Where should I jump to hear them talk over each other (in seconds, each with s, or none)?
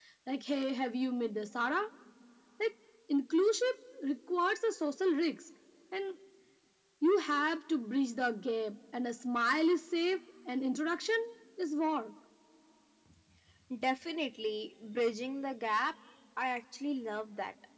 none